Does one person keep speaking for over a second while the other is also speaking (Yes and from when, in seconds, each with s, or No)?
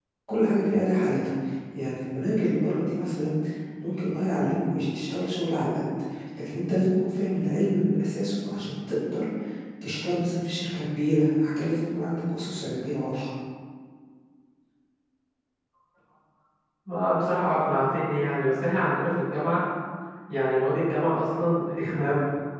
No